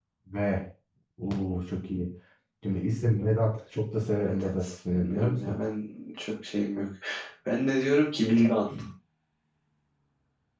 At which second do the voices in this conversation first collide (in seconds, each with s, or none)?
4.2 s